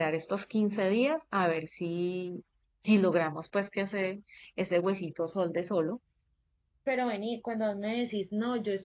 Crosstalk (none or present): none